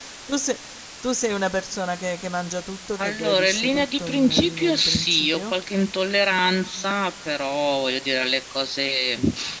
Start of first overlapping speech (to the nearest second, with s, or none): 3 s